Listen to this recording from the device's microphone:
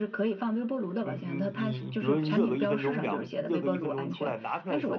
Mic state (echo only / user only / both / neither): both